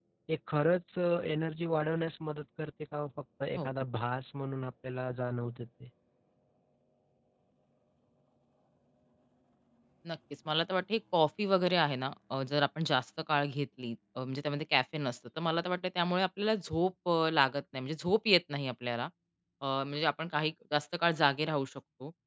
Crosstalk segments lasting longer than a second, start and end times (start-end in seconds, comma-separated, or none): none